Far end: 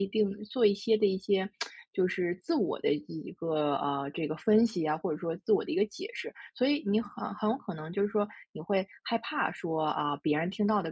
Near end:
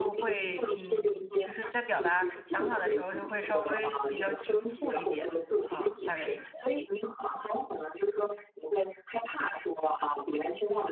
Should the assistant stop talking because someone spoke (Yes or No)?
Yes